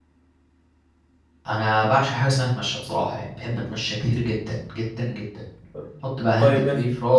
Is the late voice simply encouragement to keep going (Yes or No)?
Yes